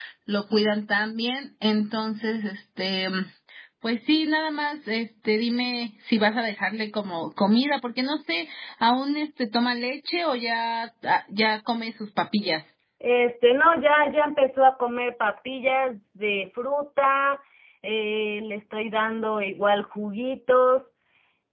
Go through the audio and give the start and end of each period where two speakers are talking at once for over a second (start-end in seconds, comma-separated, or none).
none